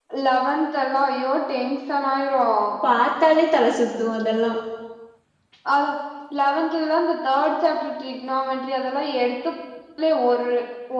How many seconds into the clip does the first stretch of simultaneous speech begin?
none

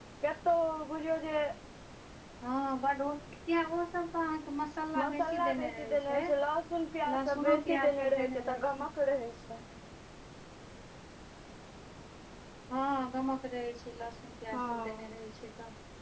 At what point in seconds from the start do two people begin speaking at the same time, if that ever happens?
5.0 s

